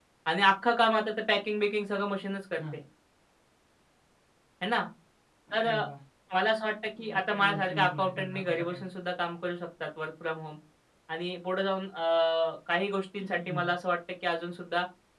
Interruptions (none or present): present